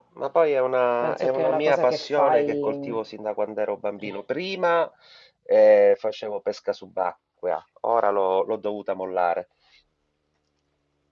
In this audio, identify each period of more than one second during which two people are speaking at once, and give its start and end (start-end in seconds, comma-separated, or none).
1.0-3.0